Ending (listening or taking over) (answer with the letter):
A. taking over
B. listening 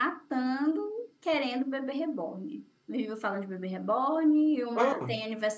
B